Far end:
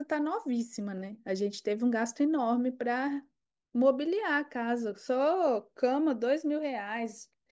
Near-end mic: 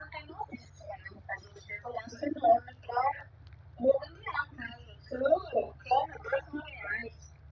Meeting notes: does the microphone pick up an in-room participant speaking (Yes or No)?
No